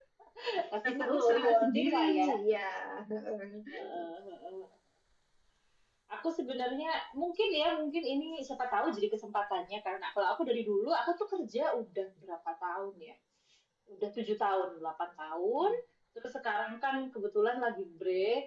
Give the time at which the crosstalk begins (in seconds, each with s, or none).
0.8 s